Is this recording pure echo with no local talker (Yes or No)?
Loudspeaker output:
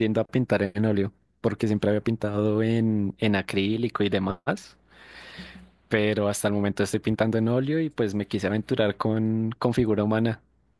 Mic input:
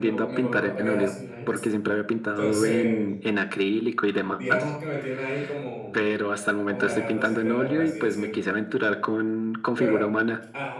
No